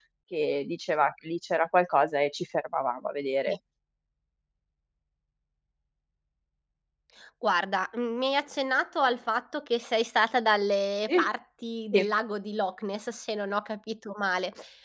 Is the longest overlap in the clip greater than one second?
No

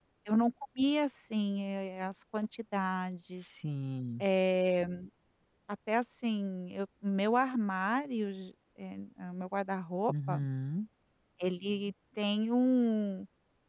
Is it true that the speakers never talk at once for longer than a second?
Yes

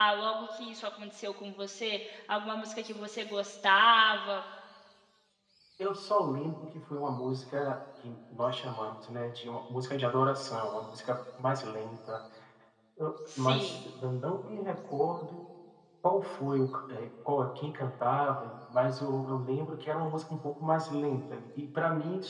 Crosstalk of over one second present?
No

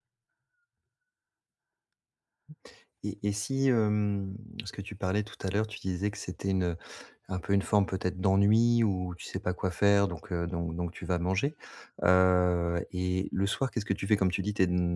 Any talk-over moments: No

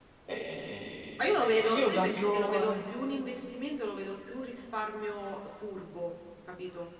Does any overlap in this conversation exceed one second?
Yes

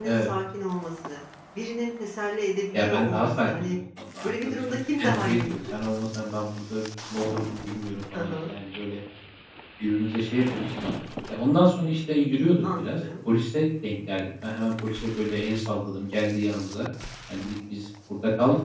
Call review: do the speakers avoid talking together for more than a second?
No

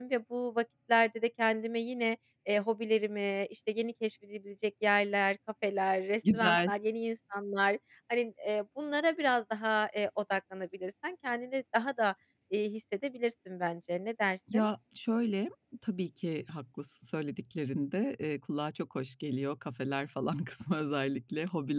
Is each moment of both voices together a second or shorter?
Yes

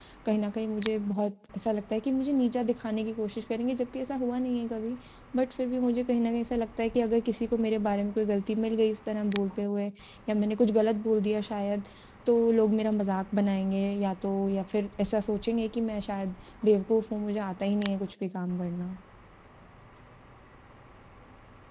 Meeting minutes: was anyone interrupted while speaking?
No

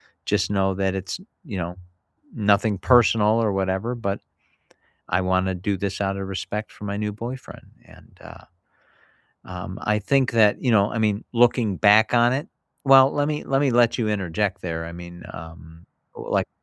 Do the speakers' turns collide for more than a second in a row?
No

